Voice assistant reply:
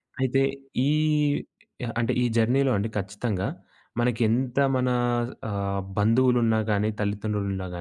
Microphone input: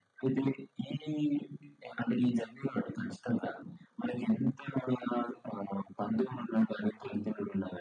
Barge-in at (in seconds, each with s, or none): none